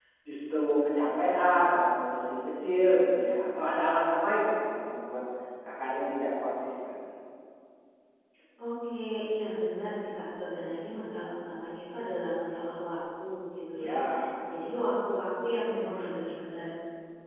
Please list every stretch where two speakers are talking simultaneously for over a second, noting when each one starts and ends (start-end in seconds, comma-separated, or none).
none